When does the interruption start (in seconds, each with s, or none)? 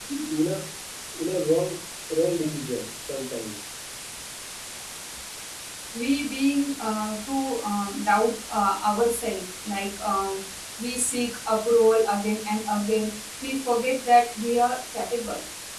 none